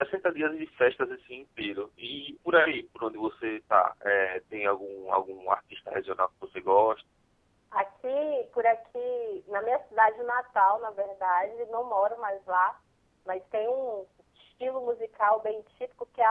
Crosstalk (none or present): none